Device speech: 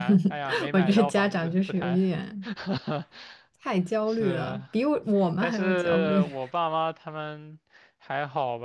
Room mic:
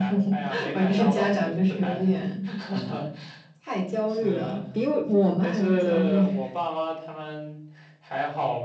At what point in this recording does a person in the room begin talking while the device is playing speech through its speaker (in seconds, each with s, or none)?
none